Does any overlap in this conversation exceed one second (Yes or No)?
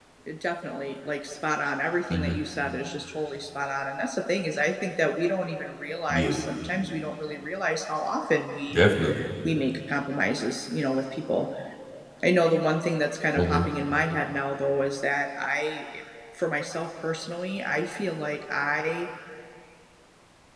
No